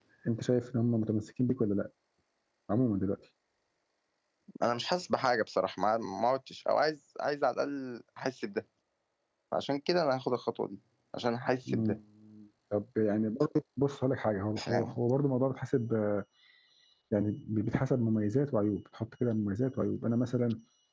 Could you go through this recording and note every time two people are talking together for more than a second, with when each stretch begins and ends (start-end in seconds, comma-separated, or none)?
none